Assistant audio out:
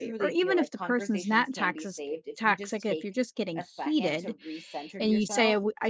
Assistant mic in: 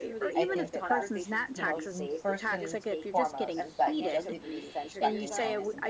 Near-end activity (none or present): present